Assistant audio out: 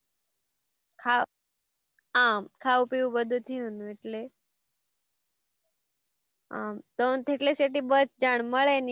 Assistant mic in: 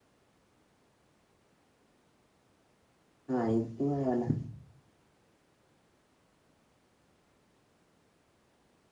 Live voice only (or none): હા એ મળવાલા